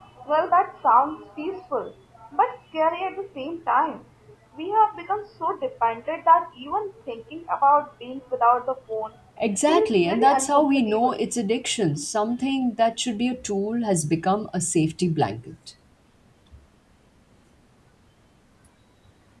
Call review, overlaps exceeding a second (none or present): present